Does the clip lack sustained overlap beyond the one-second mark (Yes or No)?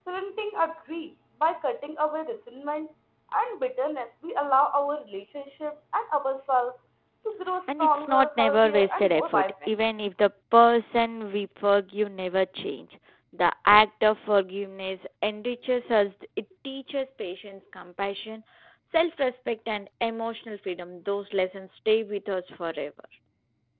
No